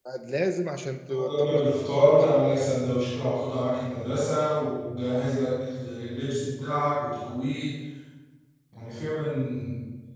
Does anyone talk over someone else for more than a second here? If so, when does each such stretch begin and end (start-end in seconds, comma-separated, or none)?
1.1-2.4